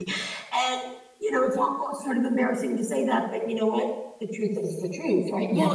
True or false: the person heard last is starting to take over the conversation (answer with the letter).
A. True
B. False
A